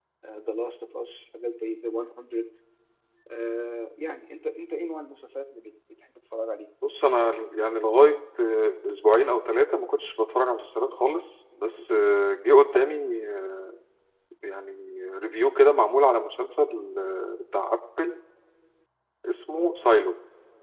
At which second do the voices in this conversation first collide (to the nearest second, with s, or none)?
none